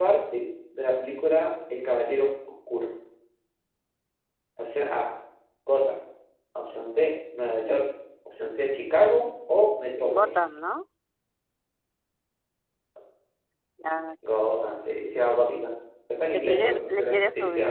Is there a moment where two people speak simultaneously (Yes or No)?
Yes